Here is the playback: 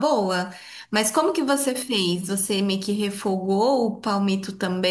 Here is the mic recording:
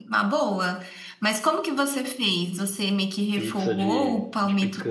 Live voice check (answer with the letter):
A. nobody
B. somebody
B